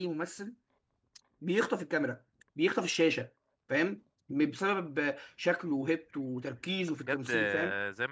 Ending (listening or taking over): taking over